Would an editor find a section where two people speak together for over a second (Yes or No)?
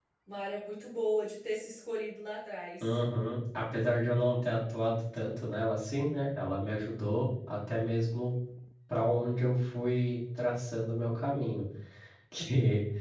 No